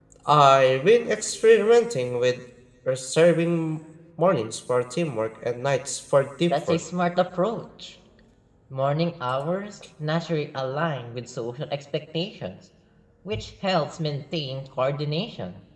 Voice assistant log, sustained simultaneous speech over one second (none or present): none